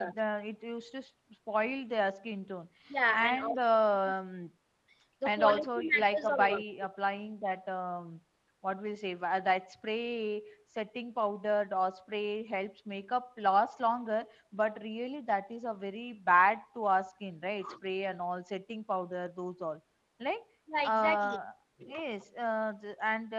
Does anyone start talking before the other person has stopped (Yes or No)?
Yes